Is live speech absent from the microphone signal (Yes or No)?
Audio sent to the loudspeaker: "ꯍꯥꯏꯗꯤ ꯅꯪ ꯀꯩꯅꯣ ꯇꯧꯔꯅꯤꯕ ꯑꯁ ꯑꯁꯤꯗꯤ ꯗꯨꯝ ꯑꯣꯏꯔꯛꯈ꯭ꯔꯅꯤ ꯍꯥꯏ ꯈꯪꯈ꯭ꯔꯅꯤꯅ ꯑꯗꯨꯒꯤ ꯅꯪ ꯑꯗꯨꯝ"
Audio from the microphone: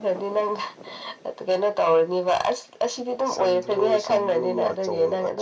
No